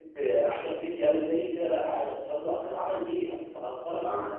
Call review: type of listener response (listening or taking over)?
taking over